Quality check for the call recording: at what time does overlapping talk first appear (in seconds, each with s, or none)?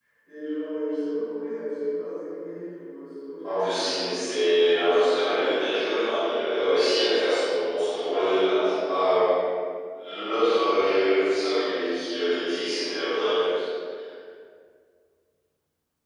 3.4 s